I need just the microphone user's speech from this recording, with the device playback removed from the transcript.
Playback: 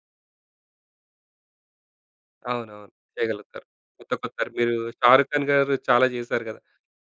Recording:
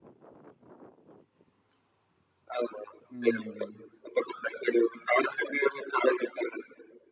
హ్మ్.

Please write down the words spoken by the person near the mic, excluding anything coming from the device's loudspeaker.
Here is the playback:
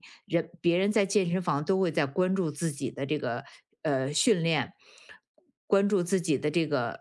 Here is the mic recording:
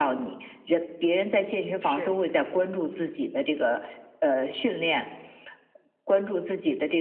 是，

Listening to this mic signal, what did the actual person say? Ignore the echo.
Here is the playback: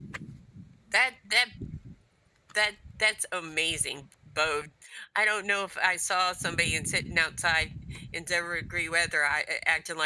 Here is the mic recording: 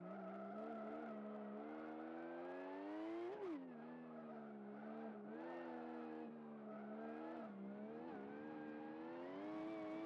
none

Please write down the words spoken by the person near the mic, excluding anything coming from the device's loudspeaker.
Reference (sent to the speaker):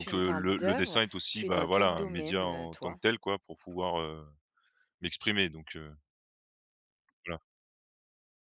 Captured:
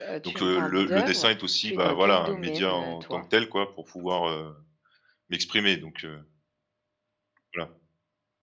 none

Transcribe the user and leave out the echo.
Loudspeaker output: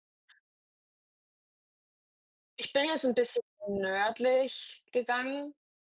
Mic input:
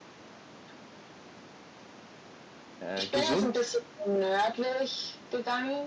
äh, gesund

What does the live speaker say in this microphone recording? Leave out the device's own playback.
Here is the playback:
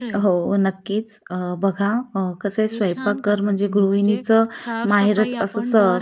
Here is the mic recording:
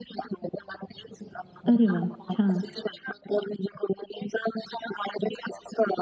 अरे वा, छान.

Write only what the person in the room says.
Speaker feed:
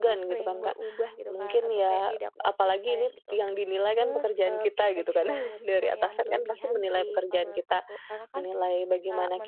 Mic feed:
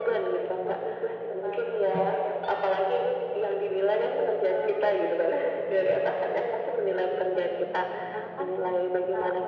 none

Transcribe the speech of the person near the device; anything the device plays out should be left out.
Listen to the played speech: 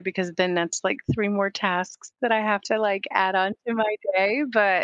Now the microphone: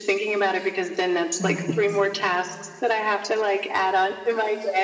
Right.

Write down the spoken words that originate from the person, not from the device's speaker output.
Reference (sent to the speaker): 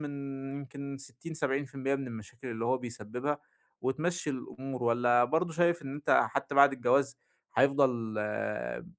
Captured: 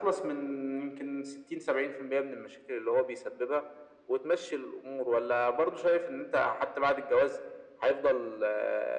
none

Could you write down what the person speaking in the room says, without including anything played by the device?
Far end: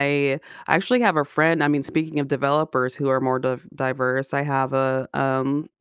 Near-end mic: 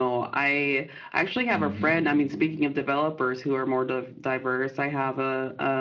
Mhm.

